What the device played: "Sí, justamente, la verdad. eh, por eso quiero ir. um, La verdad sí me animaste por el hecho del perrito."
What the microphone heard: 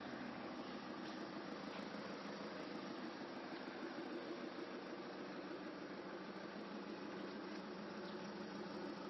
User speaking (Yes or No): No